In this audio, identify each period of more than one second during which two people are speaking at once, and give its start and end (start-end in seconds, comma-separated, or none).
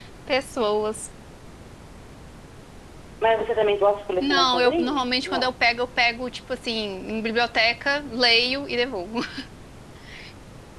4.2-5.5